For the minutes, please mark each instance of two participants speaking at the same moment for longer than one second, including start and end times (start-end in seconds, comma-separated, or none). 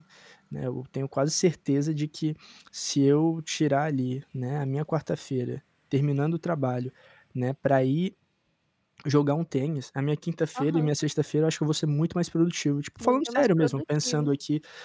13.0-14.3